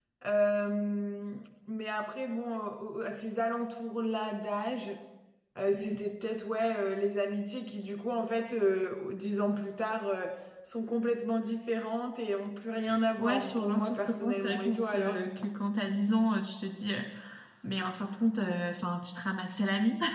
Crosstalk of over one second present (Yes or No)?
Yes